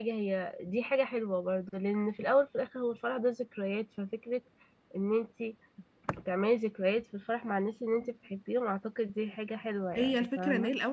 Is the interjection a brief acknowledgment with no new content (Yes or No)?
No